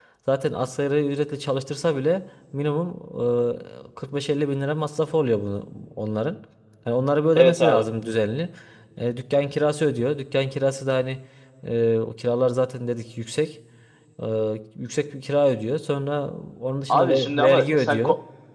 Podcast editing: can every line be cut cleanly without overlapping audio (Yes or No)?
No